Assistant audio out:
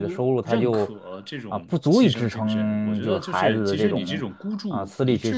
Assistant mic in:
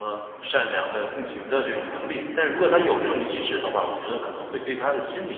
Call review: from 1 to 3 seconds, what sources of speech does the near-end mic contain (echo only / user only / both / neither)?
user only